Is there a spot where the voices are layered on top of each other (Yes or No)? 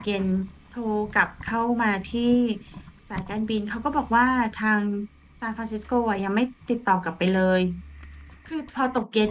No